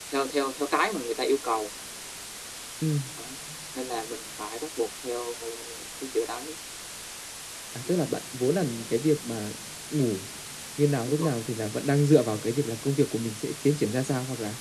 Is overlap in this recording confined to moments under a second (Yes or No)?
Yes